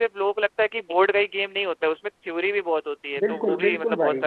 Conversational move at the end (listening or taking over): taking over